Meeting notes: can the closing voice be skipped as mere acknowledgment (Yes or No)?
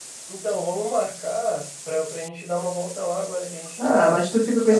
No